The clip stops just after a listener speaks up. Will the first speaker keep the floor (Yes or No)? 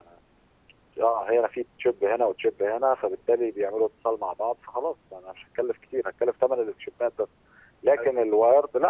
Yes